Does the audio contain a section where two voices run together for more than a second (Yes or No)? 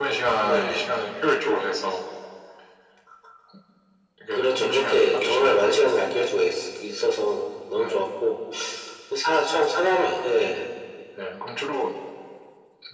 Yes